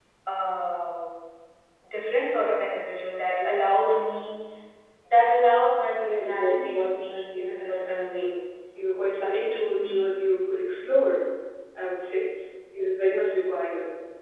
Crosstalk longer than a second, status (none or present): present